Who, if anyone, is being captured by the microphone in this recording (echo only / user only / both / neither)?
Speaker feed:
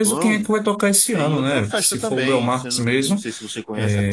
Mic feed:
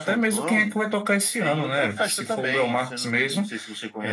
echo only